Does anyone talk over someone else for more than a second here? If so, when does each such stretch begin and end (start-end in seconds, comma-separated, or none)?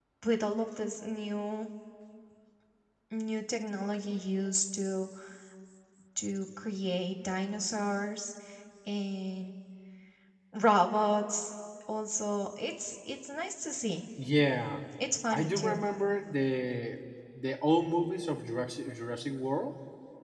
none